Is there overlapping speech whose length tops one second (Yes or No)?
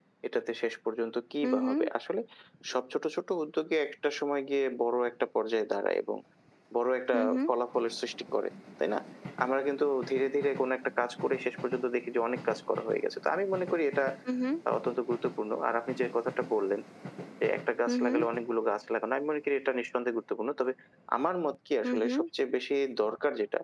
No